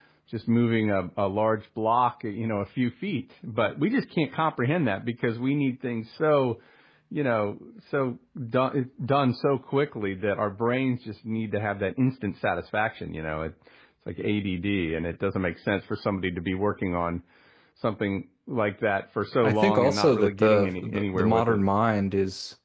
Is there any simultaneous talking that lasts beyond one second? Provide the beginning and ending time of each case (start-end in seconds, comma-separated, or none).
19.4-21.6